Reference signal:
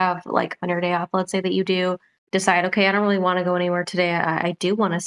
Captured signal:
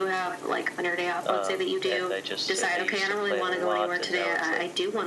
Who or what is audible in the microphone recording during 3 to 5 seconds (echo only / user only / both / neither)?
both